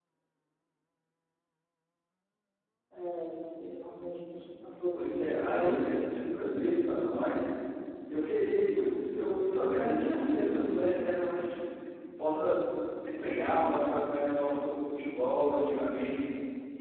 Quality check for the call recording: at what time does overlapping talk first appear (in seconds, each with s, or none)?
4.9 s